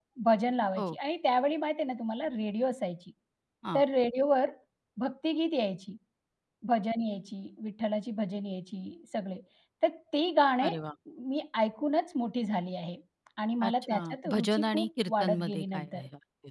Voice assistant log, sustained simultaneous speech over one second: present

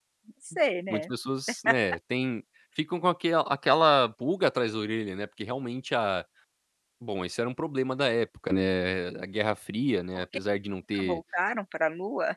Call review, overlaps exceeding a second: none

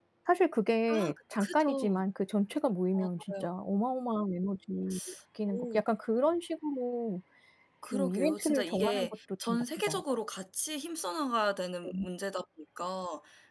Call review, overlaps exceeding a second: present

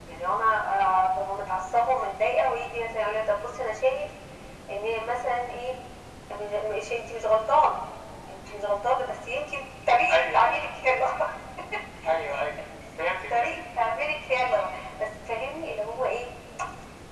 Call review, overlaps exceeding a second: none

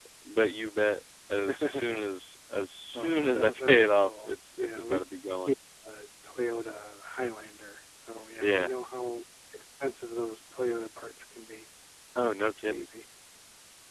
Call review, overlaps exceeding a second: present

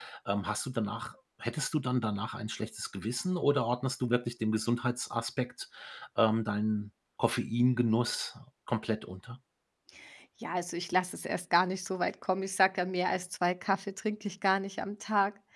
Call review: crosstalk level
none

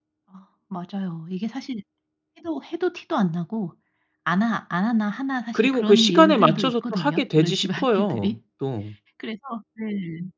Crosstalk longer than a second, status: present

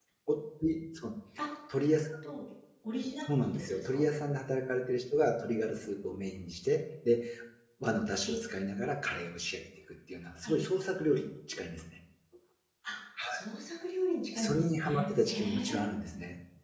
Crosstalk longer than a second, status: present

